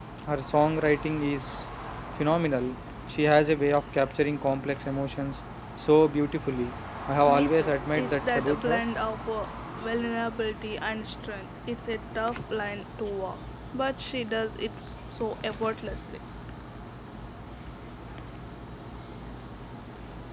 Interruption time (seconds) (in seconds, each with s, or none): 7.2 s